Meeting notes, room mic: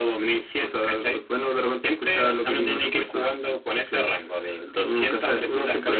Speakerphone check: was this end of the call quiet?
Yes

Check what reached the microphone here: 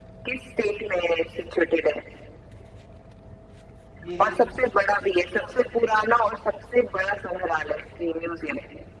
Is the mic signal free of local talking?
No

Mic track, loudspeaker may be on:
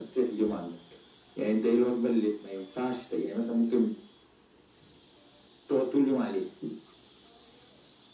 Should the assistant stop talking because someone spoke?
No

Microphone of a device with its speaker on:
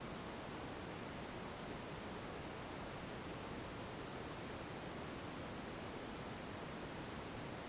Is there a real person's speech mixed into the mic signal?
No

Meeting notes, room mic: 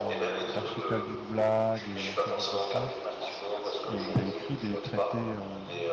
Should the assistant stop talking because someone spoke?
Yes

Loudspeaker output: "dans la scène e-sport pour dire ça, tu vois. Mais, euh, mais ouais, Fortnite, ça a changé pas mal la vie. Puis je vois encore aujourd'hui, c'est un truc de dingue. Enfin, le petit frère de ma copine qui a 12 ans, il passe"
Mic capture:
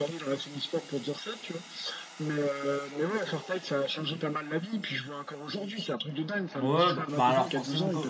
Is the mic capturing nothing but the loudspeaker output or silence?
No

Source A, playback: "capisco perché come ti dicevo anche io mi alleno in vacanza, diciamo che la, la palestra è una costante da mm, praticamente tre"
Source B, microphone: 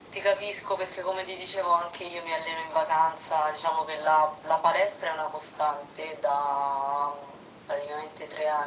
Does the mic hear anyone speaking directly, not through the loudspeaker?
No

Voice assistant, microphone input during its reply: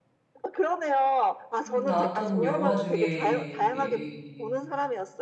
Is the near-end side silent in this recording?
No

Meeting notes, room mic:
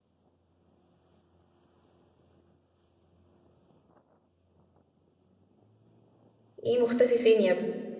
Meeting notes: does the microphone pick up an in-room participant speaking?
Yes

